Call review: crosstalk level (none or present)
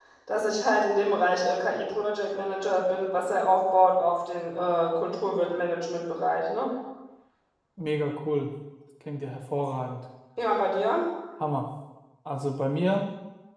none